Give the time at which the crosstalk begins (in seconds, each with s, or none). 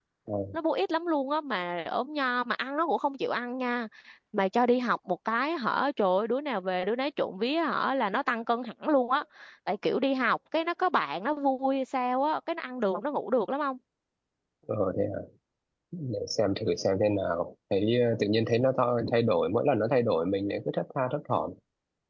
none